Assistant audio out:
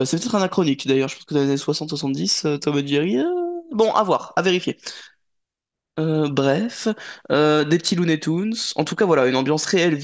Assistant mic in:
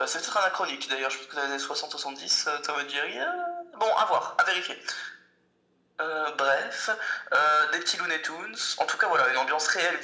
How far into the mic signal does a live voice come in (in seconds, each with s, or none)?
none